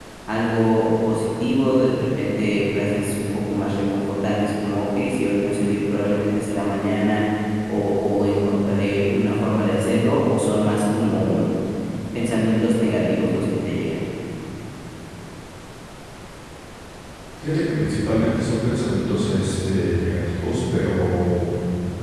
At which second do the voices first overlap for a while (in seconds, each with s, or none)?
none